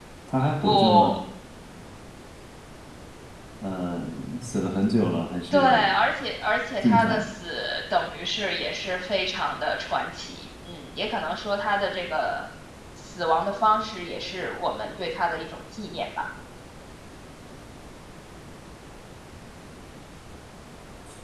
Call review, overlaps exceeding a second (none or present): none